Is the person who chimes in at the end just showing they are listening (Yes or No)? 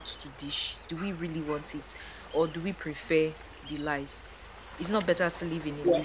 No